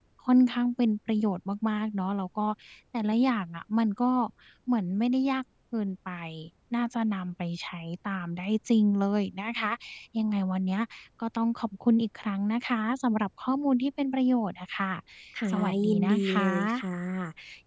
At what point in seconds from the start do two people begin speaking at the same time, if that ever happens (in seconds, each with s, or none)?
15.5 s